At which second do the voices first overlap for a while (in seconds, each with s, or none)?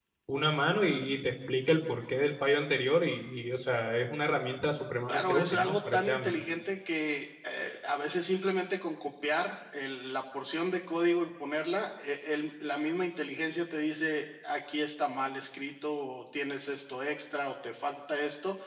5.1 s